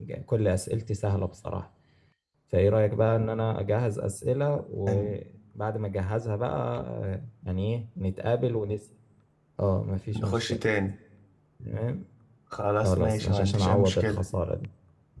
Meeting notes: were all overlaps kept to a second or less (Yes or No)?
No